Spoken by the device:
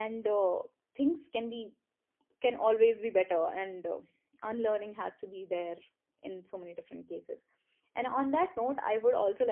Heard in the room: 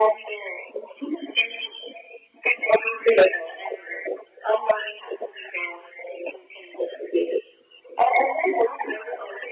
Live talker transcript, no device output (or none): none